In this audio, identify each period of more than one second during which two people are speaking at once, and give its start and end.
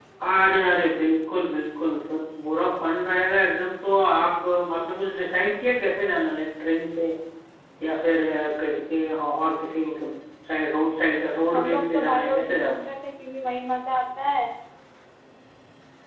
11.5-12.8

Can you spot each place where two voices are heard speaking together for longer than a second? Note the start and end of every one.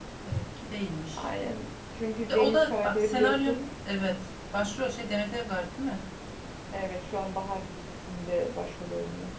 2.3-3.6

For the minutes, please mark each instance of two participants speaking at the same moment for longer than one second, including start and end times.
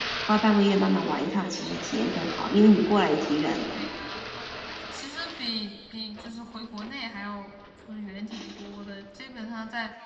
none

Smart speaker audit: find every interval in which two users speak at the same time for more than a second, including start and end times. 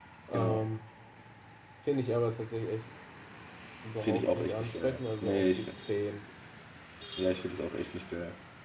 4.0-5.8

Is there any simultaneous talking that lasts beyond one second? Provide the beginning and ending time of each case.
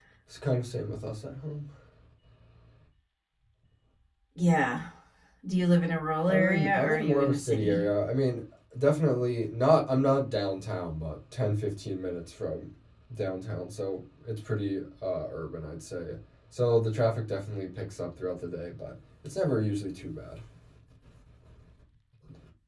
6.3-7.8

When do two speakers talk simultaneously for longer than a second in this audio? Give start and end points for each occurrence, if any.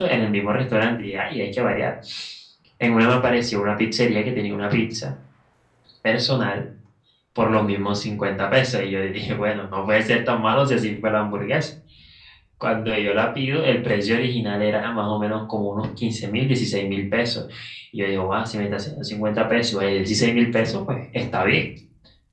none

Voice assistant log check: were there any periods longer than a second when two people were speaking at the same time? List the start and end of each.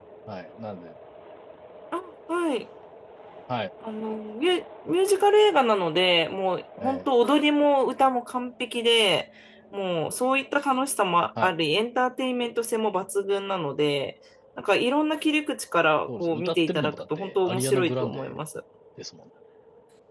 16.2-18.4

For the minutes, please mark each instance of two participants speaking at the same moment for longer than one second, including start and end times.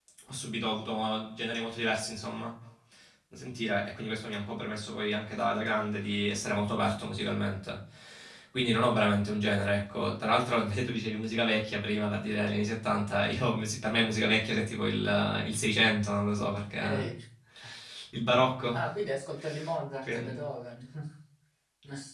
none

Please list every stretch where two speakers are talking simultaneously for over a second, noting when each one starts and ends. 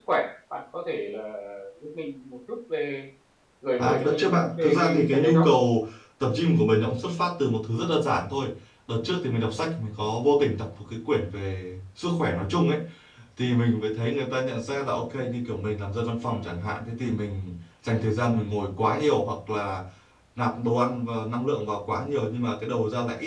3.8-5.5

